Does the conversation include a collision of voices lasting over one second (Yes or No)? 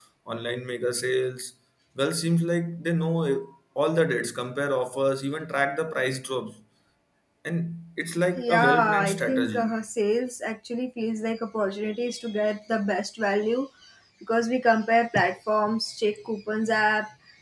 Yes